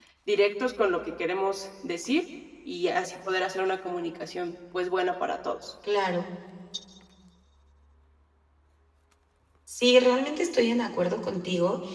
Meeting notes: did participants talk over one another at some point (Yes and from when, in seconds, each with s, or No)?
No